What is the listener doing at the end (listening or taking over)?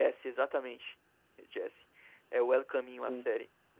listening